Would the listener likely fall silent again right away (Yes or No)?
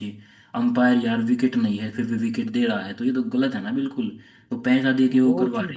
No